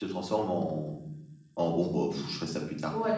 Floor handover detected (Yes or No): Yes